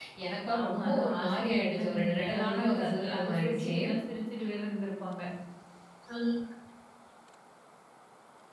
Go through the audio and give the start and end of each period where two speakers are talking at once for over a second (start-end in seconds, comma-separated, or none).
0.6-3.8